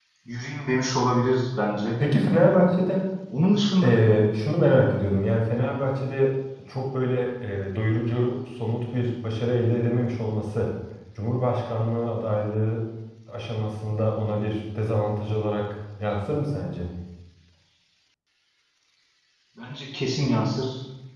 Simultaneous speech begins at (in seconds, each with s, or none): none